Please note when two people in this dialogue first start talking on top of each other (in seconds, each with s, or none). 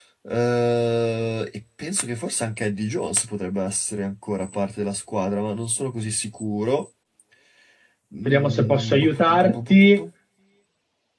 8.2 s